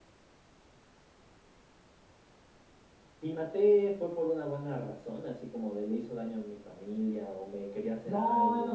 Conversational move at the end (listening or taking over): taking over